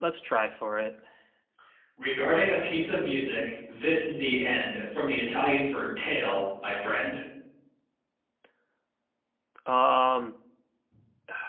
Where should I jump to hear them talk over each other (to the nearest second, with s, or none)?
none